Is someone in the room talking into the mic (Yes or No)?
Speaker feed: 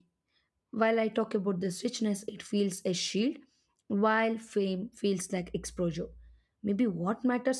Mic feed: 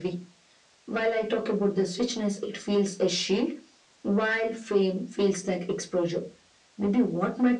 No